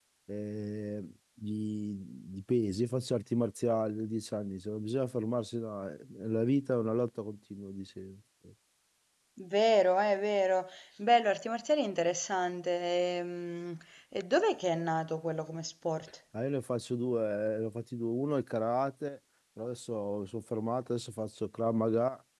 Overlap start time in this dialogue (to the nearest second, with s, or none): none